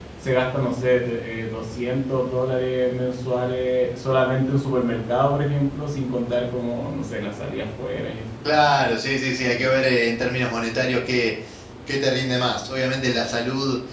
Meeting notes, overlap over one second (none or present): none